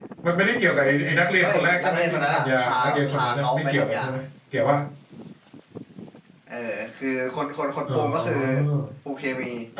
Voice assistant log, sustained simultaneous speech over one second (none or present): present